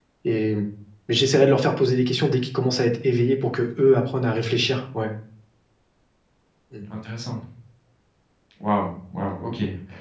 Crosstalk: none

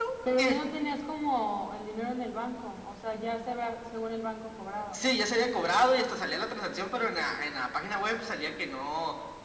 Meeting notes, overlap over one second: none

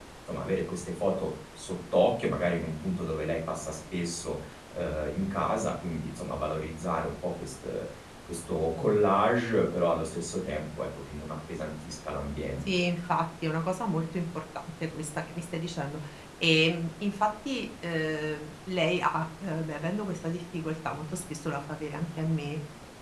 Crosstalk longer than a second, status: none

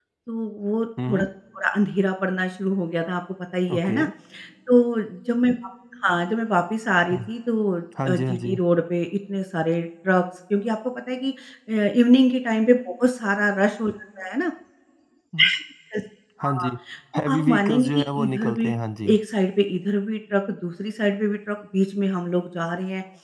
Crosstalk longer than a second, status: present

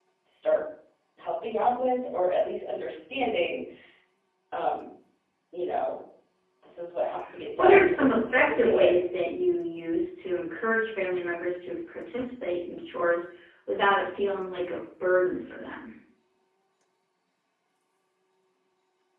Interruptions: present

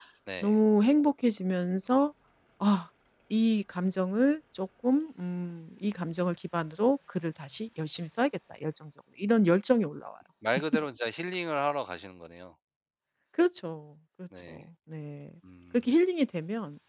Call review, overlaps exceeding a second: none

